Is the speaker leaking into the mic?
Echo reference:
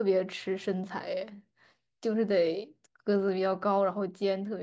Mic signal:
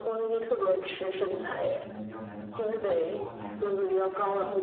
Yes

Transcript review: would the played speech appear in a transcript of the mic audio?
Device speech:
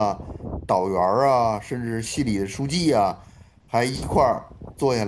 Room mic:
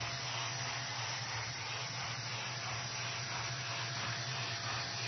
No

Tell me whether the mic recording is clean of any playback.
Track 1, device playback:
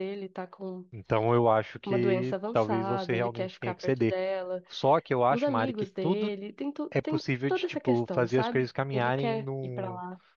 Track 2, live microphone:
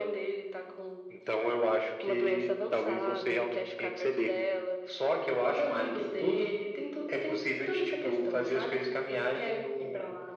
No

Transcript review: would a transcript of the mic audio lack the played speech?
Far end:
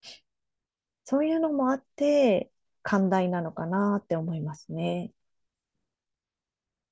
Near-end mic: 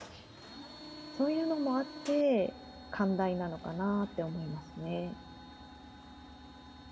No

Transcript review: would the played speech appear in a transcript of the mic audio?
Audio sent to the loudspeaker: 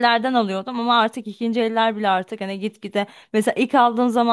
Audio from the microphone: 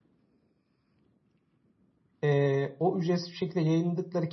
No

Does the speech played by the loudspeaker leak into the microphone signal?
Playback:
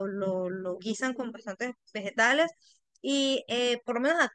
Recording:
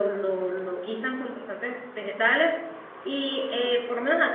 Yes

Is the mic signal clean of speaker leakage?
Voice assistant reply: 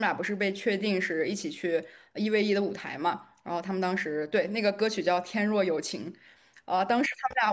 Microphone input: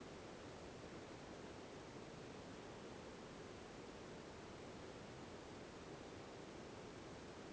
Yes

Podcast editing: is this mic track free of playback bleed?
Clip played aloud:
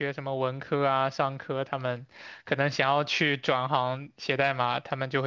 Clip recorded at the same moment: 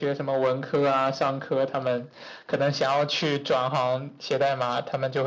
No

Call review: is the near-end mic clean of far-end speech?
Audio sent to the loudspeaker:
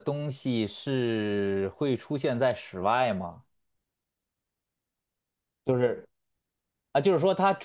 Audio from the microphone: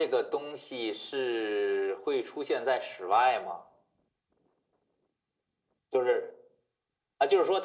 No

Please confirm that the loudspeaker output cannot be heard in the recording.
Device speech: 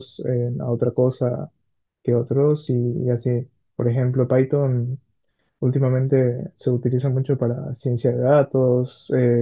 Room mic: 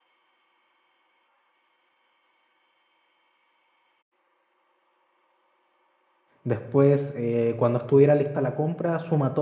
Yes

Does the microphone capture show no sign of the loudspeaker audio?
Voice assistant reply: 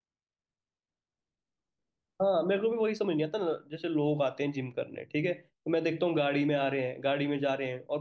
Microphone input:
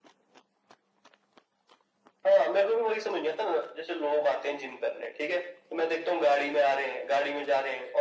No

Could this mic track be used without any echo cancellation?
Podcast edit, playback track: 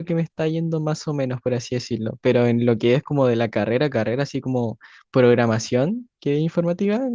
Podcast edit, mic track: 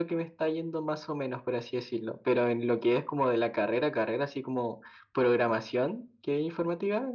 No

